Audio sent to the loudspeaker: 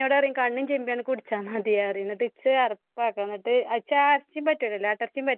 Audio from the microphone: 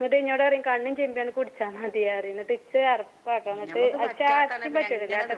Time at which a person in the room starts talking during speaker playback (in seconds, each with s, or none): 3.5 s